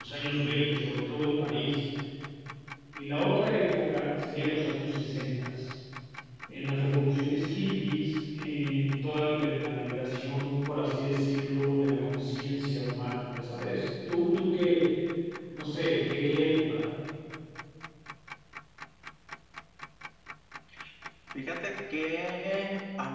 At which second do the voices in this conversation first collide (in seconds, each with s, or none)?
none